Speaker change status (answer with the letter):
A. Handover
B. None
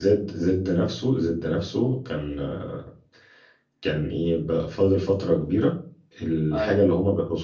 B